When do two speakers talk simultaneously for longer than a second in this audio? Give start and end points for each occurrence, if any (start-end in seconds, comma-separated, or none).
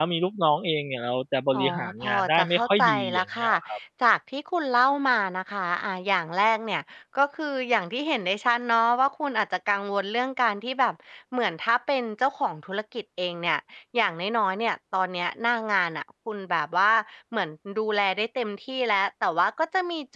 1.5-3.5